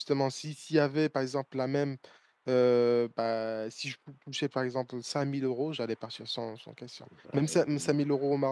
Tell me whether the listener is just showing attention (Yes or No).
Yes